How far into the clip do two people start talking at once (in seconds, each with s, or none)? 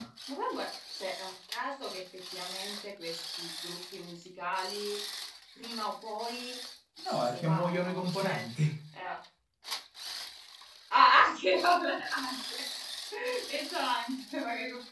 7.1 s